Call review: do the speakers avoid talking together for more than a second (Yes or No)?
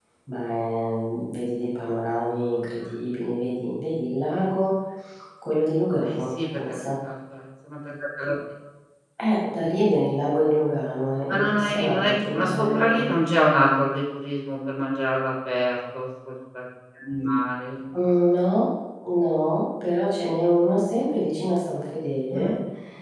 No